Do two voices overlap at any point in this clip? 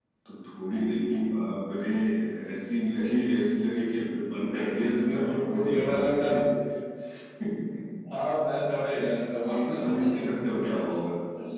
Yes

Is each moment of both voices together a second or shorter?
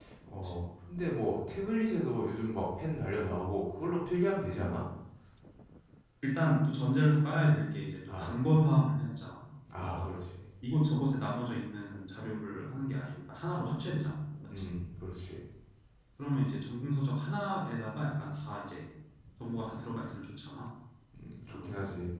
Yes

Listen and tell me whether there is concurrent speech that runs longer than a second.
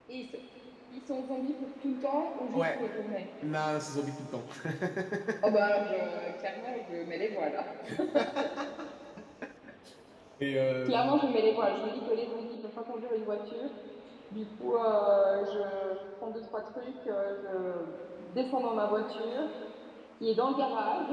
No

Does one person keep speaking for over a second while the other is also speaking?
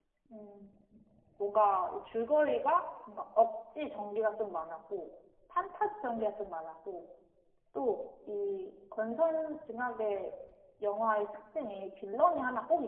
No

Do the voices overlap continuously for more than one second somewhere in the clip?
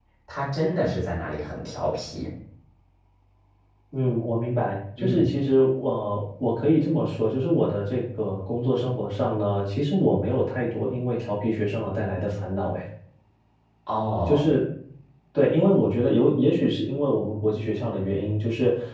No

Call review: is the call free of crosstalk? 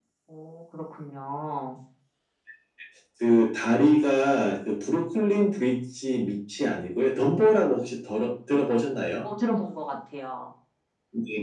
Yes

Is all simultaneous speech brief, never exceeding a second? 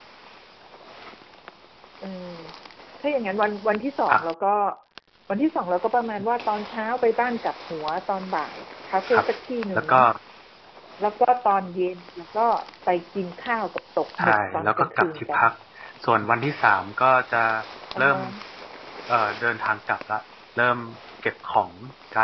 No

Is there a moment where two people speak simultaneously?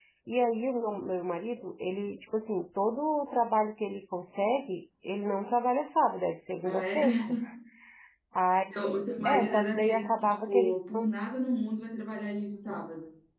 Yes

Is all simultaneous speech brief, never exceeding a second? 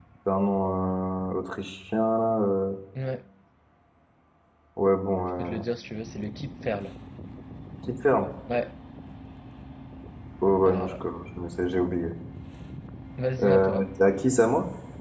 Yes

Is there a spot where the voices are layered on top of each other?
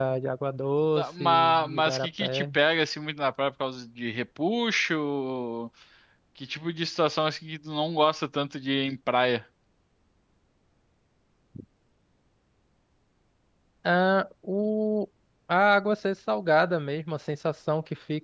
Yes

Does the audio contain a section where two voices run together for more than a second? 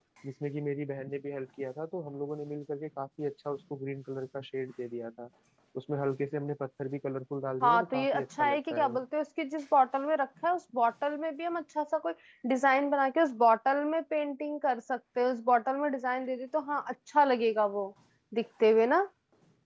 Yes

